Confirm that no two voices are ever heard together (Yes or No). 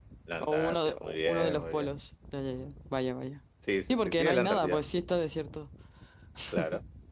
No